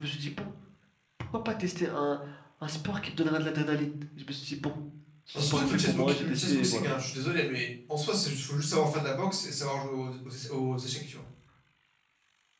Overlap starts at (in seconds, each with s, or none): 5.3 s